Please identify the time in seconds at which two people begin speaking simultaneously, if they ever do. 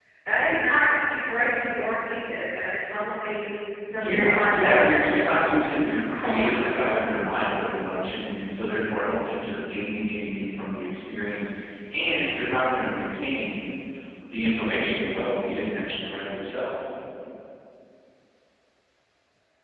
3.9 s

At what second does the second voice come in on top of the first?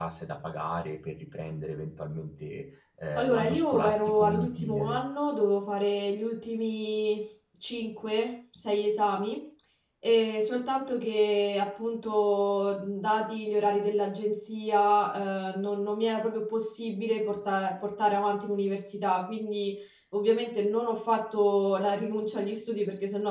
3.1 s

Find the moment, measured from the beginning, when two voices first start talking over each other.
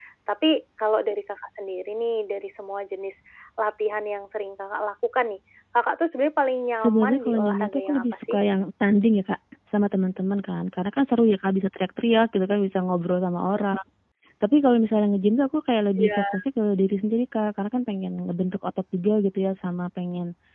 6.8 s

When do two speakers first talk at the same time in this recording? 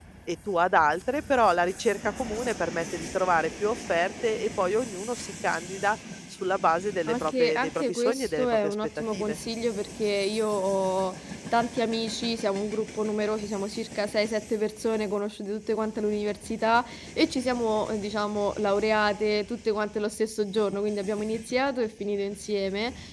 7.1 s

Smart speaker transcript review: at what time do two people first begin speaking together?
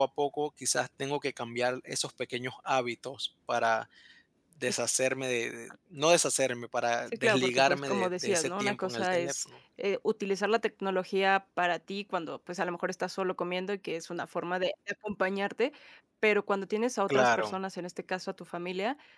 7.1 s

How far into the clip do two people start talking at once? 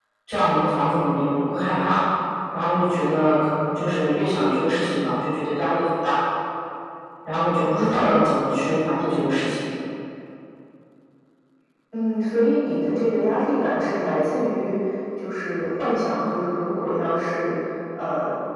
none

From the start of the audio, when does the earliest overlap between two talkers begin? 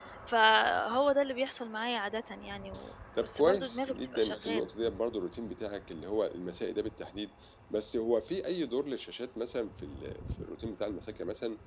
3.1 s

